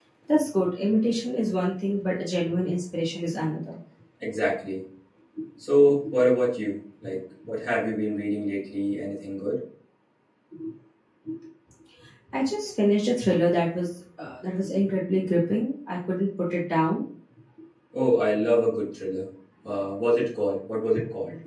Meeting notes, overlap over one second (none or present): none